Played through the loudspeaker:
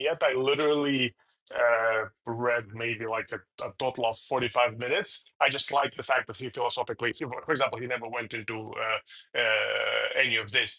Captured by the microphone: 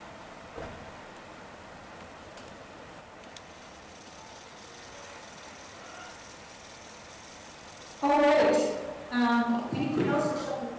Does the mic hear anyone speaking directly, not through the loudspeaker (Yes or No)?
Yes